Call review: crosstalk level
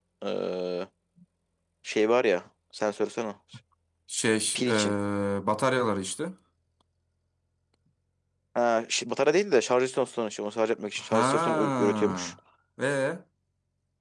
present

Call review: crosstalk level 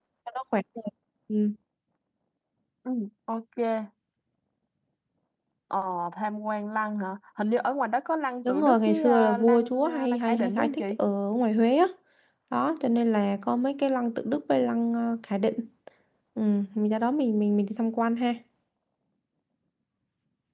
present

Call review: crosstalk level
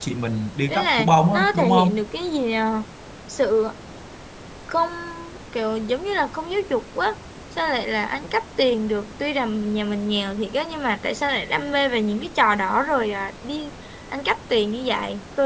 present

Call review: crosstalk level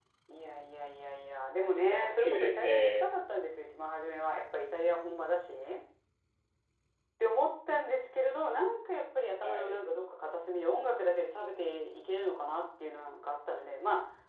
present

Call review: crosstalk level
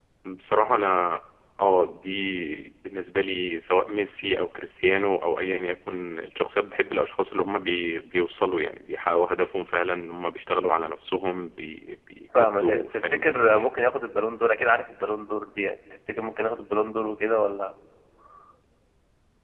present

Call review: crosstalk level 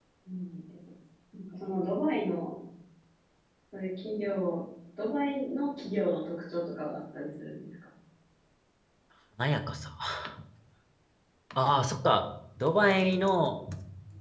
none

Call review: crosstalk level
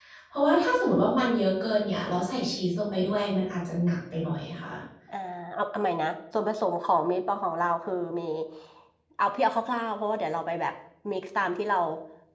none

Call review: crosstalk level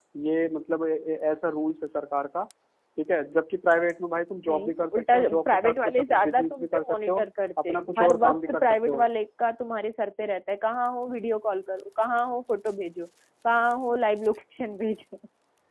present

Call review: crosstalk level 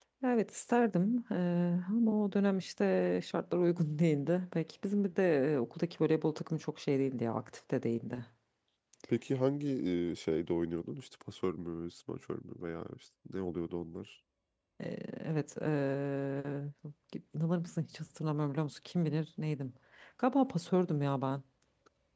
none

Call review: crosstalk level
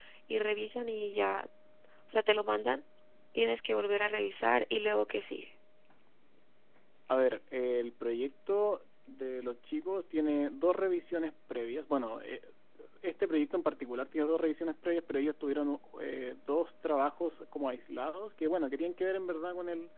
none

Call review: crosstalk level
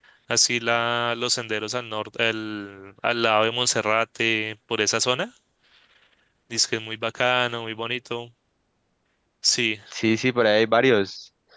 none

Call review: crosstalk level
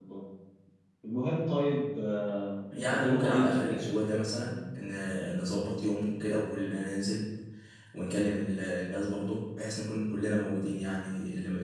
present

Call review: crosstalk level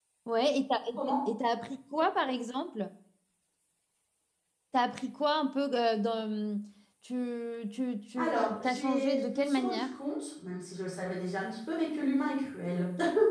present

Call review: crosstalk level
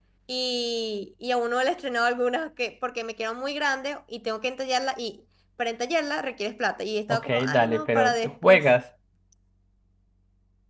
present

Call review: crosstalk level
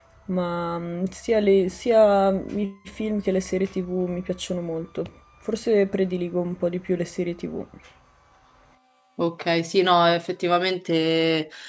none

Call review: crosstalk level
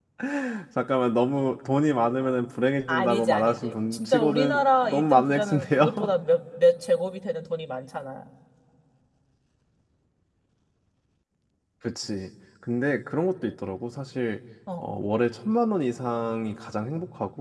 present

